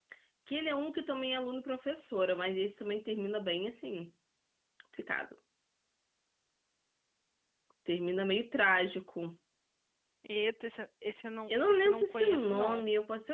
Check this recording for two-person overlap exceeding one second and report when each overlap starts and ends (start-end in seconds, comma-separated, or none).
11.5-12.8